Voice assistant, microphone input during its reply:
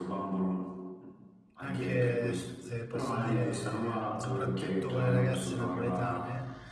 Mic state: both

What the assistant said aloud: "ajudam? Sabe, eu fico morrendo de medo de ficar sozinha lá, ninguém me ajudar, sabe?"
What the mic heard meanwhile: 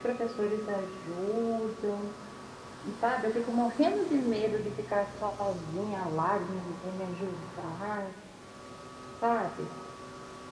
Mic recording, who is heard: echo only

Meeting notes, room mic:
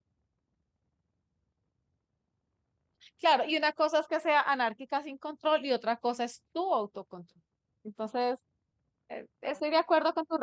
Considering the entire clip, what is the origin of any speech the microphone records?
user only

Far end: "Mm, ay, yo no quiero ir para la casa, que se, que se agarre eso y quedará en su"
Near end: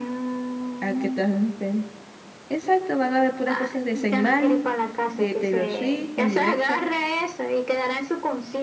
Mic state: both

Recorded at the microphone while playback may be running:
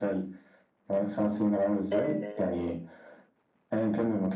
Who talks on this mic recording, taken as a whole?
both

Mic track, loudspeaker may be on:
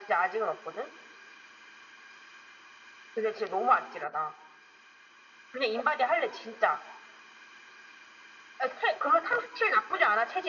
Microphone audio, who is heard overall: echo only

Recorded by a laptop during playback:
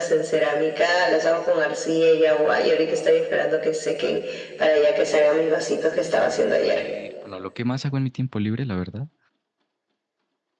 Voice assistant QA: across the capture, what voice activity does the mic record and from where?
both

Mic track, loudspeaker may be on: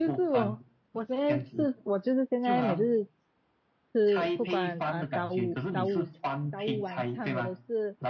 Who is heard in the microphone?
both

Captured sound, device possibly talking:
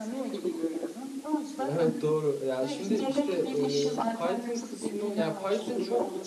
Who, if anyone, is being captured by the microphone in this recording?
both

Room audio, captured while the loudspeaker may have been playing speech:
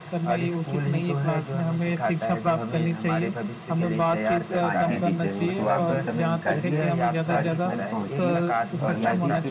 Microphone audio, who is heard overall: both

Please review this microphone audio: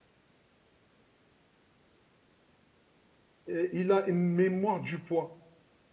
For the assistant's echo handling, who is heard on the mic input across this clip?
user only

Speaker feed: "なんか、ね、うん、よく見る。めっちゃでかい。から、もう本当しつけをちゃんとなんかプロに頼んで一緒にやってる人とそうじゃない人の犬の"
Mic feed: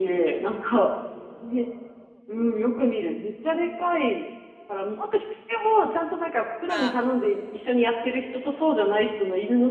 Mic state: both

